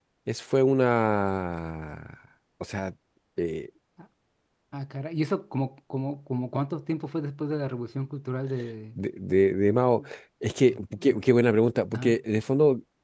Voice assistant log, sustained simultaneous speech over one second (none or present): none